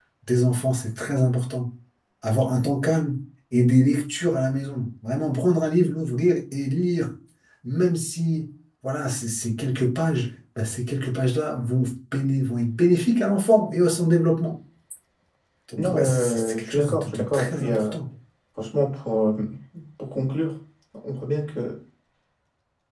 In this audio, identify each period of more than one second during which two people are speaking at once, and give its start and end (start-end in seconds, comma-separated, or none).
15.8-17.9